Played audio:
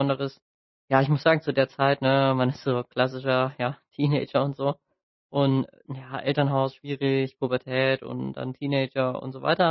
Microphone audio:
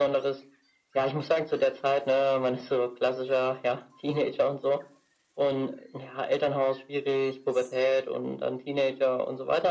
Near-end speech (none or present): none